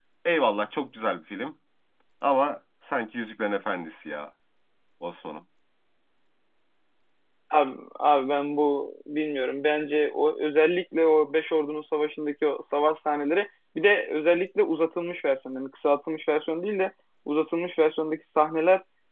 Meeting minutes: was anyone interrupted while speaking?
No

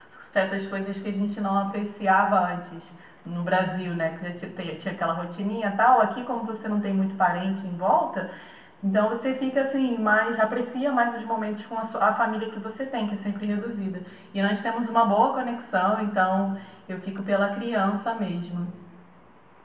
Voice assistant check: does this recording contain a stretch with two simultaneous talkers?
No

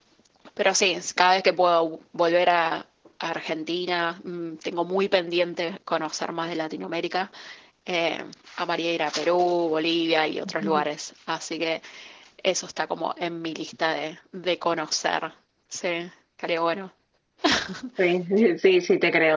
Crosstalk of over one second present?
No

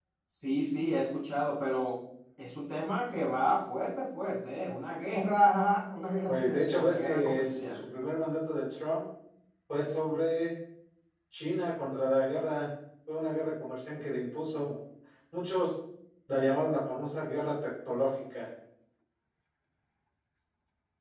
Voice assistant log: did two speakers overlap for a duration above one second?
Yes, from 6.3 s

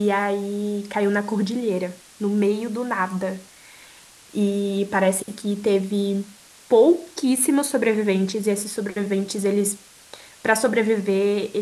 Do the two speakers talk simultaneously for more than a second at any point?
No

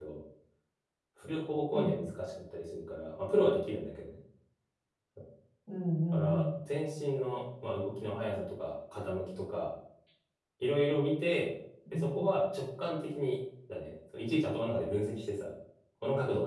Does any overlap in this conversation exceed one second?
No

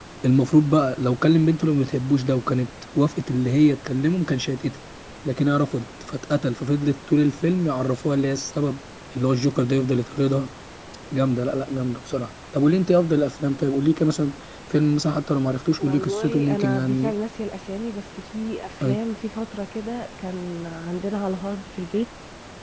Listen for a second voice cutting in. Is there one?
Yes, from 15.8 s

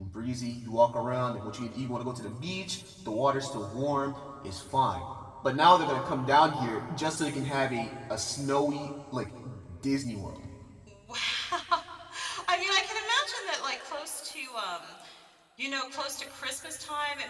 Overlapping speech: No

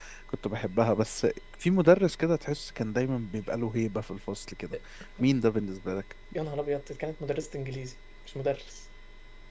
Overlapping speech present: No

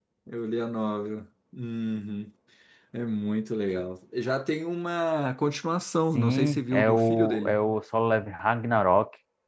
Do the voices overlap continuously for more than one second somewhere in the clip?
Yes, from 6.1 s

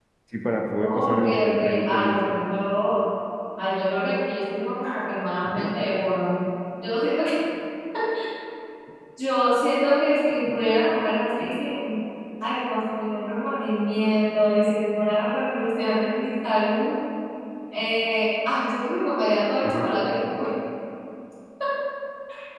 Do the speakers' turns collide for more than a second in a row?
Yes, from 0.8 s

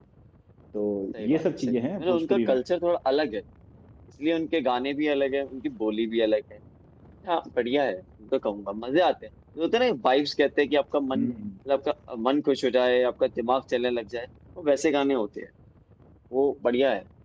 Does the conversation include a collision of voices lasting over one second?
Yes, from 1.3 s

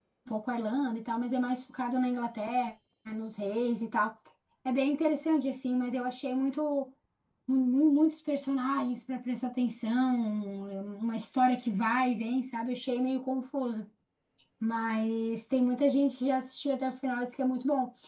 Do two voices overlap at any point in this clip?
No

